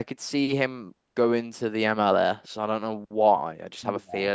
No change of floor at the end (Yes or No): Yes